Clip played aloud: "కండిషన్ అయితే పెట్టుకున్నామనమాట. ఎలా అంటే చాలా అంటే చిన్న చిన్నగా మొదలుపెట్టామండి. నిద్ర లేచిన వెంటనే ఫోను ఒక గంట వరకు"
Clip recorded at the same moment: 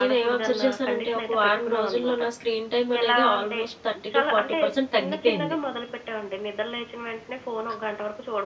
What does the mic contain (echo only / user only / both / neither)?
both